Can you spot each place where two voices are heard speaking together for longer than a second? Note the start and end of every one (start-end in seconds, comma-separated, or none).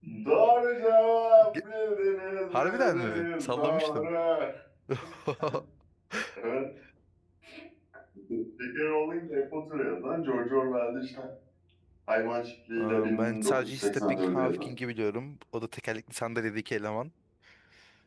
2.5-4.1, 12.8-14.6